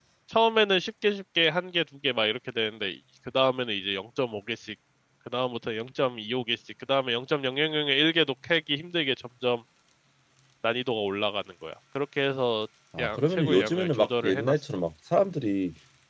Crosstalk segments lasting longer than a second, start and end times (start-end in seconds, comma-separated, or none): 13.0-14.5